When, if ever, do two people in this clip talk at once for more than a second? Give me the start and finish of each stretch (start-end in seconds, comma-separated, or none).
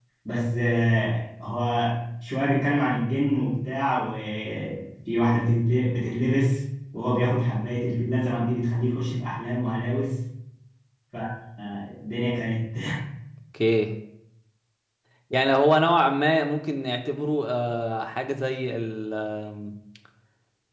none